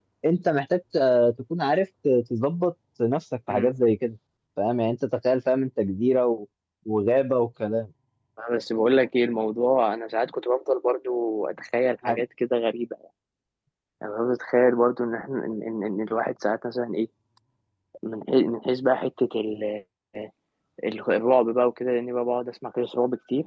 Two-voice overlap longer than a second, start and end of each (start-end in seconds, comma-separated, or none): none